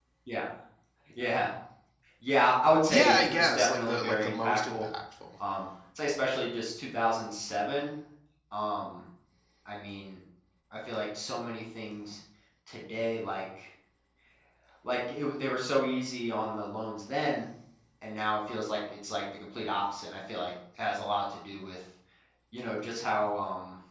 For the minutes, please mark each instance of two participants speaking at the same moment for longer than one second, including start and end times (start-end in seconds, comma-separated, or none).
2.9-4.8